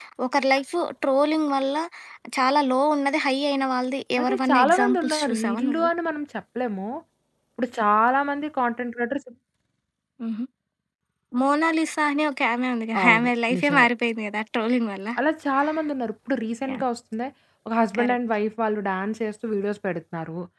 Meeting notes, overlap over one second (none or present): present